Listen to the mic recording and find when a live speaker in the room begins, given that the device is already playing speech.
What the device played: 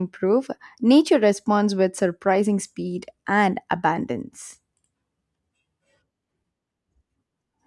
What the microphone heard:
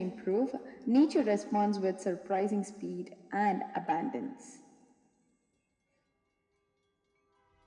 none

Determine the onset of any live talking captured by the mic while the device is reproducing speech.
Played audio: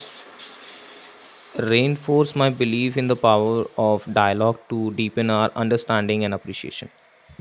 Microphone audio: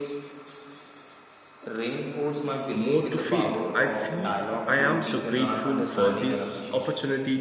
2.7 s

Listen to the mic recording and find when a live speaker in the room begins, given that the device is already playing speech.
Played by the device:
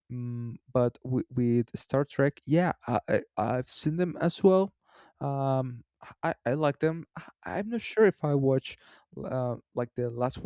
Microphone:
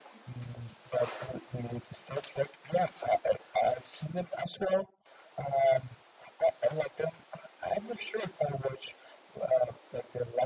none

